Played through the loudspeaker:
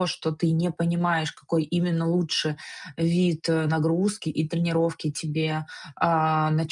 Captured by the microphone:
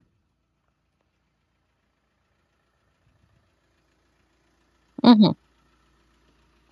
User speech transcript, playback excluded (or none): Мгм.